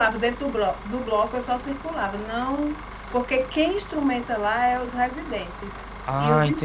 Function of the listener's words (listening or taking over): taking over